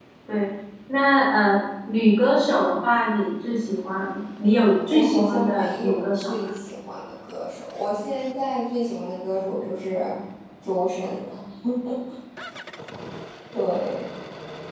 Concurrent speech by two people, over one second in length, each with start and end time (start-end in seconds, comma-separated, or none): 4.9-6.5